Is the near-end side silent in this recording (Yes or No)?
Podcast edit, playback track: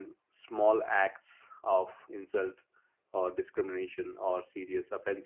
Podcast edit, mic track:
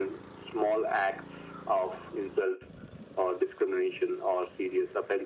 Yes